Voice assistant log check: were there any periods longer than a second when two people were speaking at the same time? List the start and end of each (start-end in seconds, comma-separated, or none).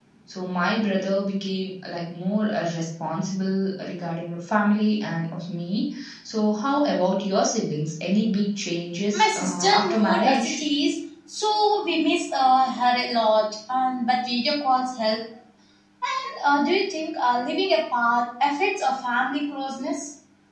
9.1-10.6